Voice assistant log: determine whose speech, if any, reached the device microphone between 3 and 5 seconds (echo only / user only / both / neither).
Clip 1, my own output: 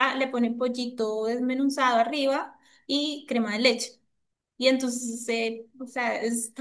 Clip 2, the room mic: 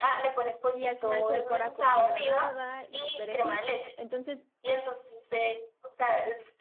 both